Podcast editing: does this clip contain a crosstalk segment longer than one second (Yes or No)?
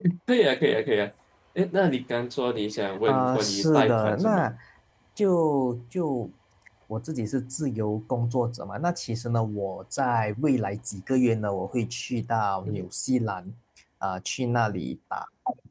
Yes